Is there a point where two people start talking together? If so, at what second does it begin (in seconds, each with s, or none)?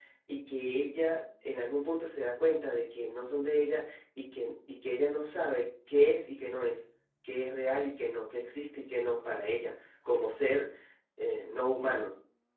none